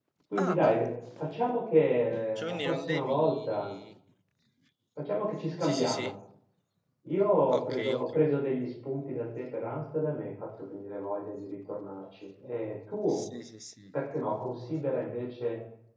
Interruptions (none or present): present